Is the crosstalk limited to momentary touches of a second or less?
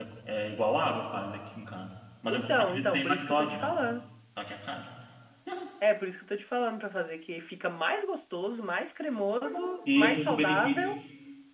No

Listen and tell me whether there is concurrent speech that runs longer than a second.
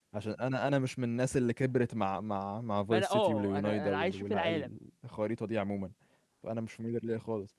Yes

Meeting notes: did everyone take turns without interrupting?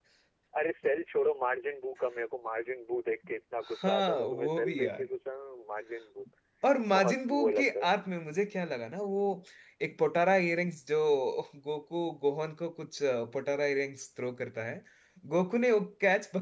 No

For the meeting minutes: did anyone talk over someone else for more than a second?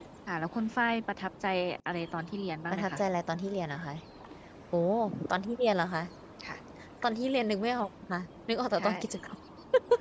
No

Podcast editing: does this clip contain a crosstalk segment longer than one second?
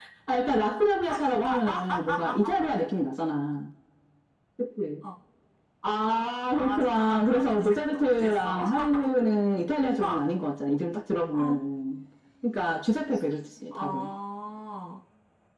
Yes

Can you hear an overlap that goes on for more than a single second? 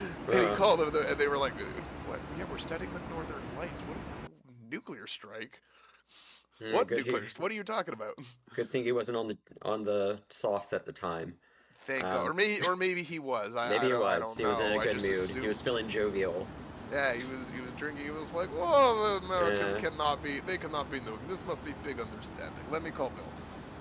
Yes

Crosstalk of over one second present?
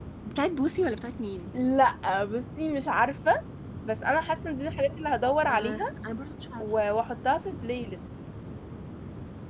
No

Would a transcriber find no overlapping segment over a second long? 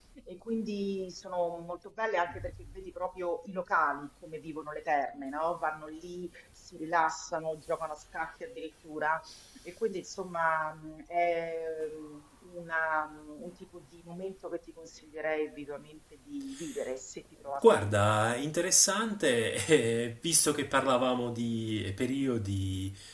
Yes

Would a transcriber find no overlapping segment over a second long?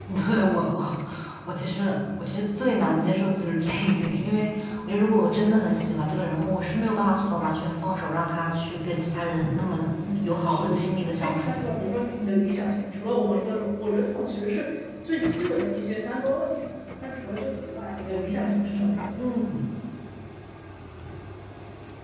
No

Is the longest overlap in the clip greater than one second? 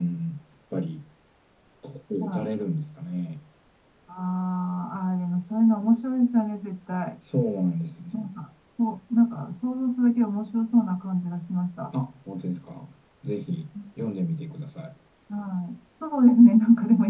No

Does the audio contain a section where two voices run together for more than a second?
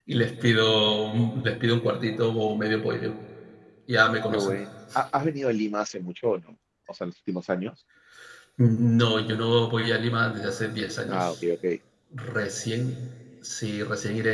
No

